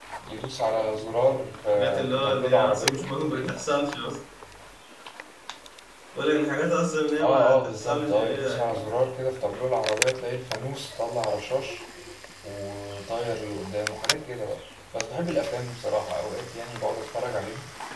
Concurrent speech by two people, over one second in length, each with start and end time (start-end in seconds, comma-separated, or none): 1.7-3.5, 7.2-9.0